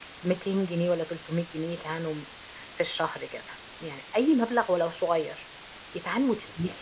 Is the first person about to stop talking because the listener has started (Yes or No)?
No